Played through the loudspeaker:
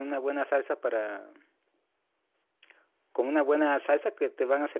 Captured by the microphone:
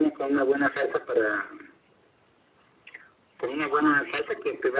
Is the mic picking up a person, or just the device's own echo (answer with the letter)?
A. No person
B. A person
A